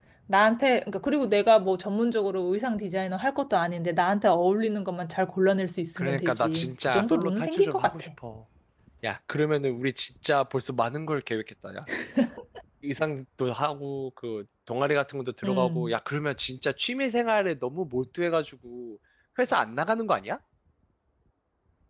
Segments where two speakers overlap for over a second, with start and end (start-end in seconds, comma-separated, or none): 6.0-8.1